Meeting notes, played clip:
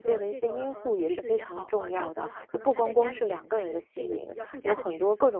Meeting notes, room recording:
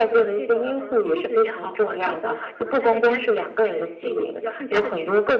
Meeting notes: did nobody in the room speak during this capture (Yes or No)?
Yes